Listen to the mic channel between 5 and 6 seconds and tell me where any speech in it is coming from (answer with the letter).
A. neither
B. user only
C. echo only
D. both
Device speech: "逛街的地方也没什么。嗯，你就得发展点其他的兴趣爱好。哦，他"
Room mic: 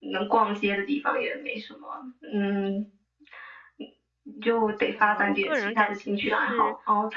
D